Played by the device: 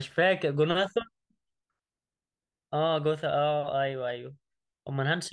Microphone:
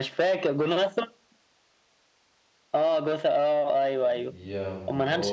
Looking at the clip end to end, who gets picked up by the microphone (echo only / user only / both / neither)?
both